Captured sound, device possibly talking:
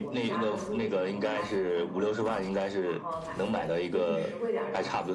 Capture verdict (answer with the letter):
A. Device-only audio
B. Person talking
B